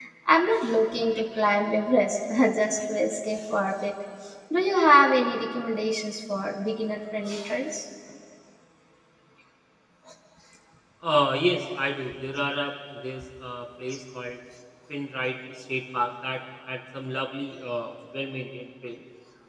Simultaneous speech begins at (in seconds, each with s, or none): none